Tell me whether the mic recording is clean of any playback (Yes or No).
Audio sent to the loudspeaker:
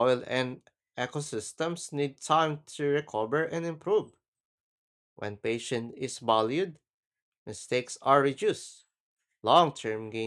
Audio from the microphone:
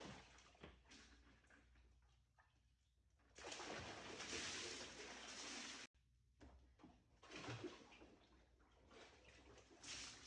Yes